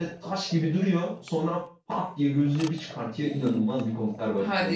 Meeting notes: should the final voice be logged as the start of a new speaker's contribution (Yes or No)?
Yes